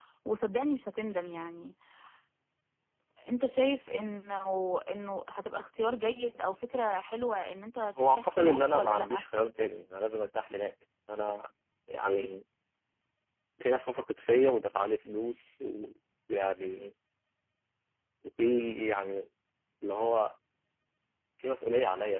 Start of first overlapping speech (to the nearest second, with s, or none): 8 s